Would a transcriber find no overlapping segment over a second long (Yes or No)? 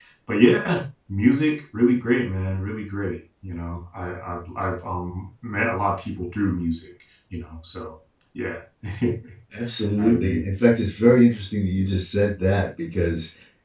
Yes